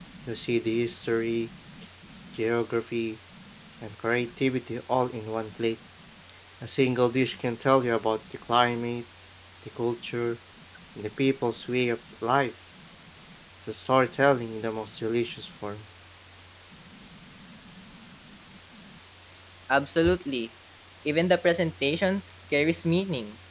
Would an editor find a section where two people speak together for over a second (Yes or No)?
No